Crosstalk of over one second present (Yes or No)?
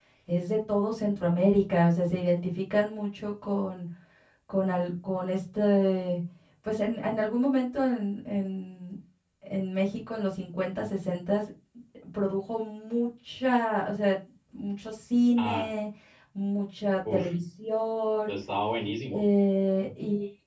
No